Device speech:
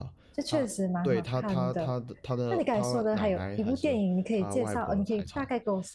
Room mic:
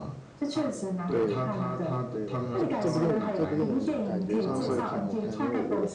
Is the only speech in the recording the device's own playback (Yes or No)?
No